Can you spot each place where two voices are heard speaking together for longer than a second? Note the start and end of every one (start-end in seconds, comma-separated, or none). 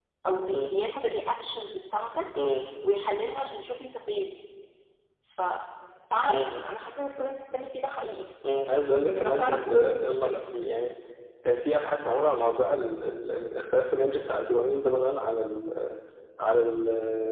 9.0-10.4